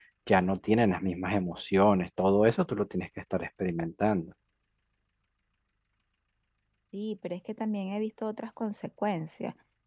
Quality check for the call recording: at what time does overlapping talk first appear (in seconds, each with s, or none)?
none